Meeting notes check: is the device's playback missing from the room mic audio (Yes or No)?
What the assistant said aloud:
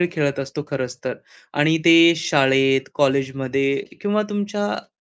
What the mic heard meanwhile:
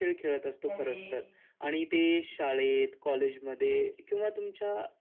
No